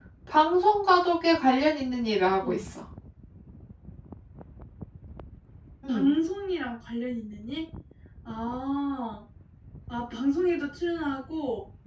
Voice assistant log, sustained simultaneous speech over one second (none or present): none